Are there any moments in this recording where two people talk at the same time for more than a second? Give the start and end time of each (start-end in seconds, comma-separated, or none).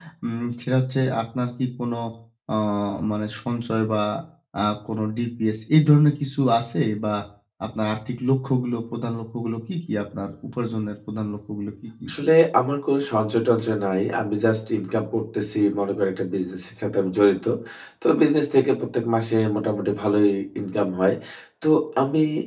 none